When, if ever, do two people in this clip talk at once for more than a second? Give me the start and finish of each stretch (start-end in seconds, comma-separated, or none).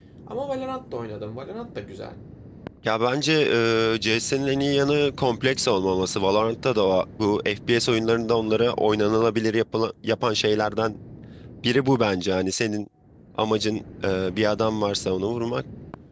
none